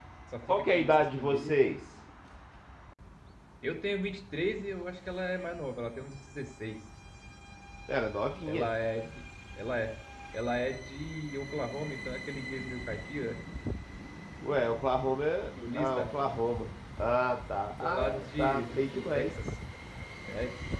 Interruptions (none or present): present